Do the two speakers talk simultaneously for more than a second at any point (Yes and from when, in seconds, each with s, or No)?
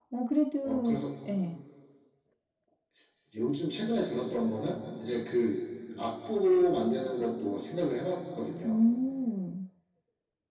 No